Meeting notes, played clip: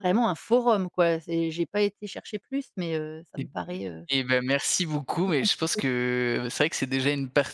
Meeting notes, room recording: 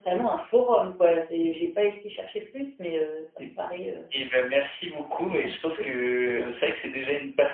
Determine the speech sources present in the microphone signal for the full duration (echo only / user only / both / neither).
echo only